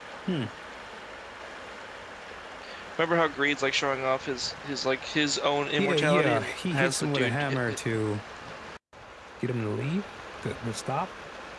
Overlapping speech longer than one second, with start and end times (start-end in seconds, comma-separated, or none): 5.8-7.8